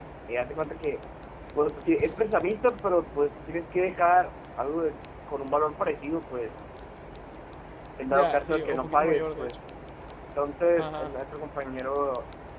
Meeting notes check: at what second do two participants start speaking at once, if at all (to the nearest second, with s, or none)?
8 s